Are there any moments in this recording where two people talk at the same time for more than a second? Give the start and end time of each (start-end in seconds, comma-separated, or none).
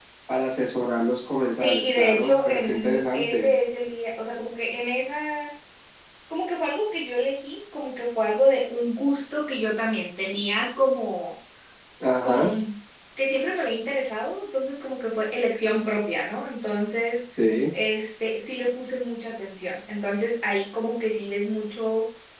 1.6-3.5